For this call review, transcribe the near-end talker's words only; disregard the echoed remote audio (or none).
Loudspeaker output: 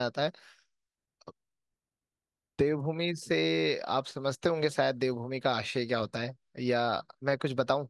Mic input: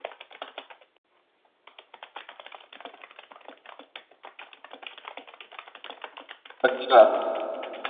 अच्छा